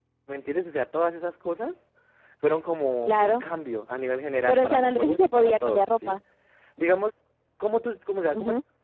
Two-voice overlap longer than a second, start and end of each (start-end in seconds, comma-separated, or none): 4.5-6.2